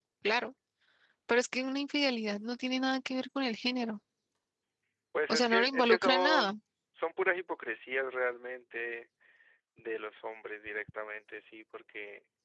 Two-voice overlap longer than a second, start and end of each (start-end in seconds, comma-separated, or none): 5.3-6.5